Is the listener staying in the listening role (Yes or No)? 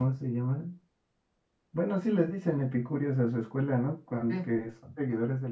Yes